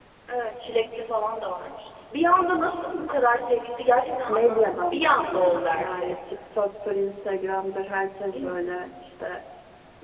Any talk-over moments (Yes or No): Yes